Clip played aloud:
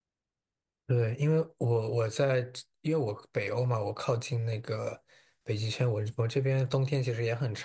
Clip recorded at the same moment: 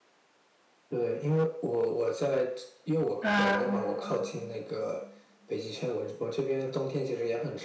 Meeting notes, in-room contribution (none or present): present